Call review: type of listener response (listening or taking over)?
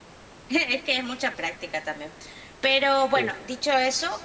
listening